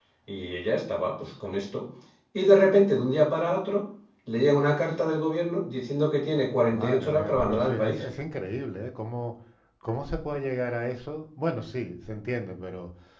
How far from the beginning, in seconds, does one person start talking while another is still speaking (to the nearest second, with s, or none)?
7 s